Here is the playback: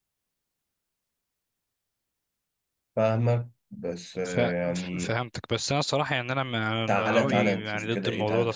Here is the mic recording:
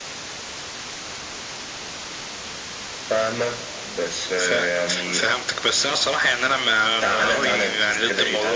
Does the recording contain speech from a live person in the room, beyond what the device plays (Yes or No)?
No